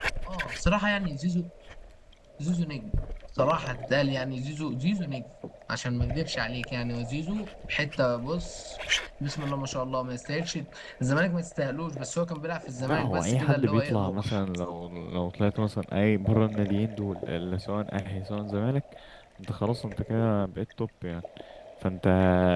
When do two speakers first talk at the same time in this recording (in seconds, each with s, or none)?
12.8 s